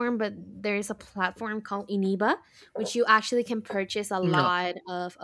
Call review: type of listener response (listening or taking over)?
listening